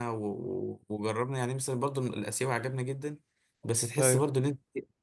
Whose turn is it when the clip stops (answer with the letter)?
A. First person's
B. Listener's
A